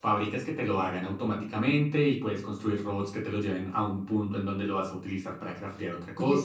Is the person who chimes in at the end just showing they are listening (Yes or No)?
No